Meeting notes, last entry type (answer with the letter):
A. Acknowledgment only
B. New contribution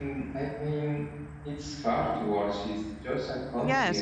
B